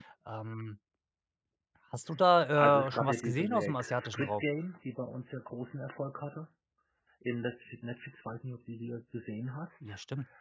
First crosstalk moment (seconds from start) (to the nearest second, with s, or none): 3 s